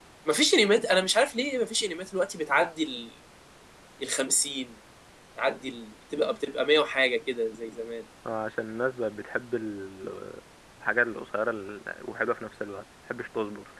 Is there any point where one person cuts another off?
No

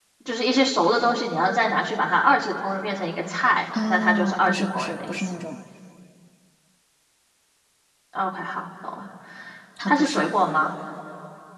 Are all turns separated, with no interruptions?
No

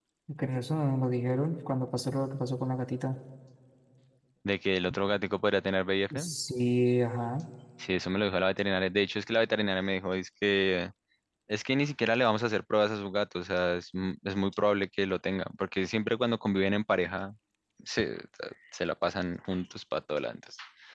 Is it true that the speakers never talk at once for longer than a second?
Yes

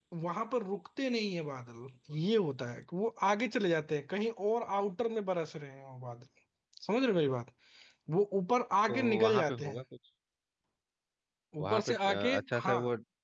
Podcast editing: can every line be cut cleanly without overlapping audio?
No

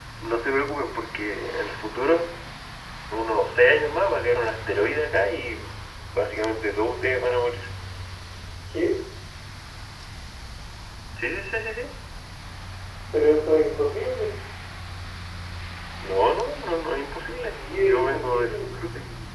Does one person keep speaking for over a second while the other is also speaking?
Yes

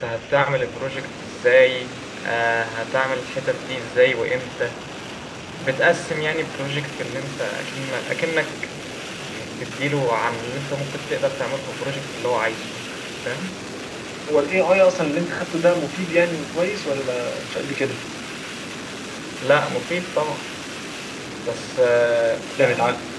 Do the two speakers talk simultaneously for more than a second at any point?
No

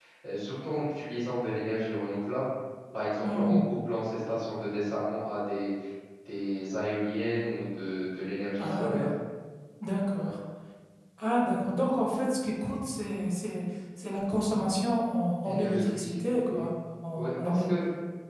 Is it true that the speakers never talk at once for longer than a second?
No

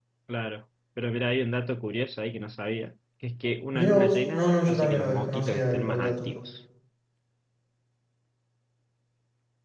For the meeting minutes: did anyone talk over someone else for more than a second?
Yes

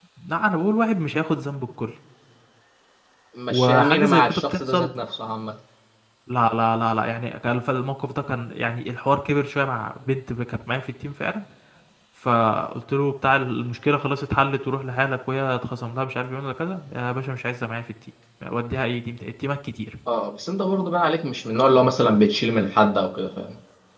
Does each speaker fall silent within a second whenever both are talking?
No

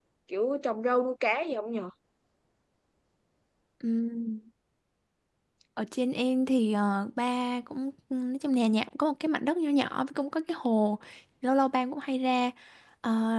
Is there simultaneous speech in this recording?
No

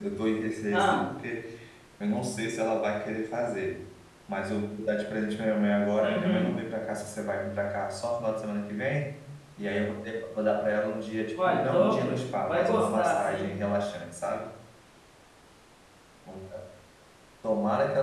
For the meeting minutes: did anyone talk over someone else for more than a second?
Yes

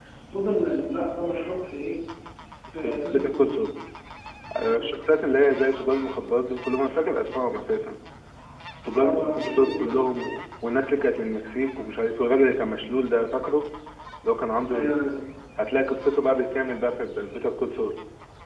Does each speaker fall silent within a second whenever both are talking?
No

